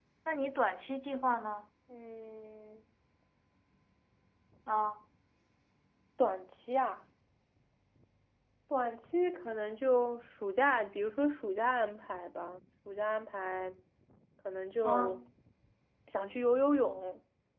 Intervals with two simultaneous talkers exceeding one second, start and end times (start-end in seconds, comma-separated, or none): none